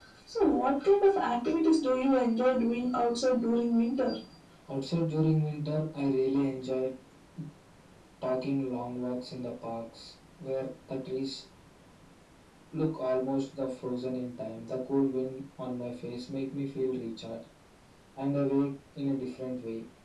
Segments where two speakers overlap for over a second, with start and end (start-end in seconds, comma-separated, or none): none